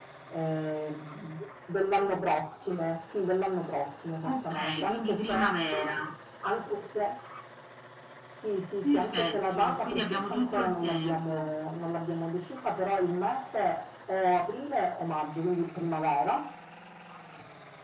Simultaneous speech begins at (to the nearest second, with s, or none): 4 s